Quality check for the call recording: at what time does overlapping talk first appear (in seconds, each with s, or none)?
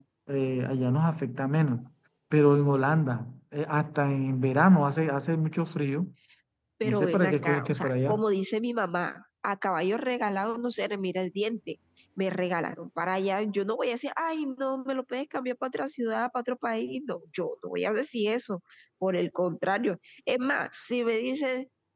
6.8 s